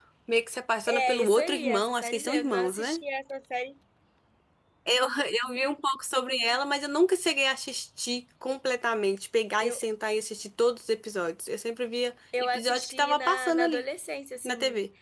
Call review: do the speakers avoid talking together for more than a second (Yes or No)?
No